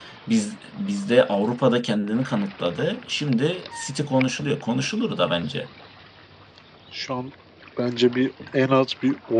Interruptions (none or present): none